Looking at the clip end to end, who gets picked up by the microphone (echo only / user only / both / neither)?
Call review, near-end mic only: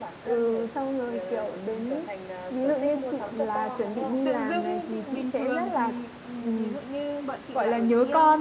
both